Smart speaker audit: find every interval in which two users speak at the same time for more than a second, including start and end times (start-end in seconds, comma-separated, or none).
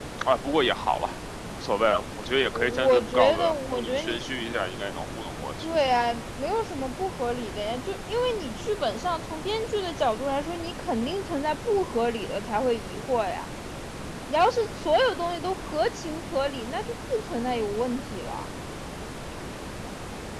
2.5-4.2